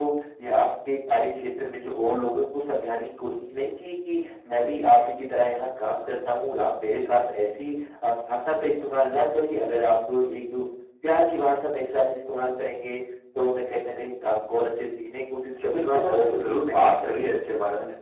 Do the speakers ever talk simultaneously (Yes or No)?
Yes